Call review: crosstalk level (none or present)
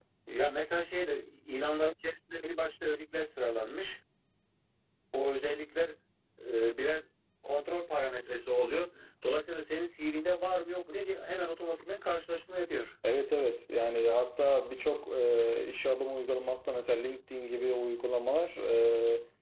none